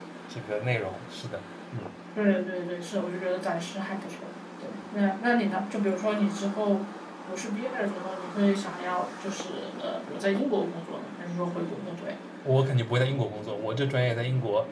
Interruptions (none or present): none